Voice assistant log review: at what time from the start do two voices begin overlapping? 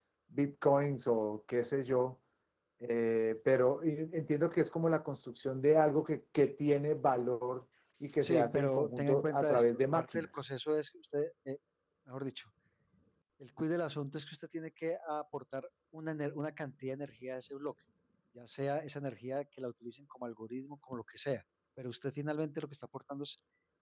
8.2 s

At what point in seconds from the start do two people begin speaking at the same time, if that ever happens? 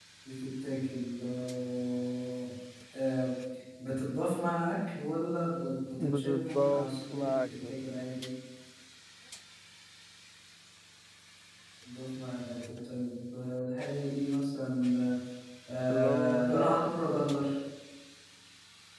6.0 s

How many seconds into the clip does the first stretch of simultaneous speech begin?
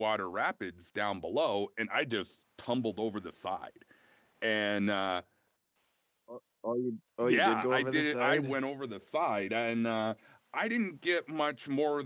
7.2 s

